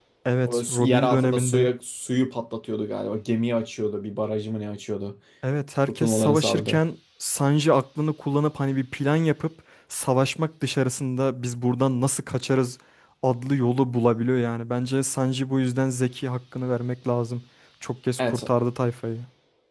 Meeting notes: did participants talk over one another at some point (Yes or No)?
Yes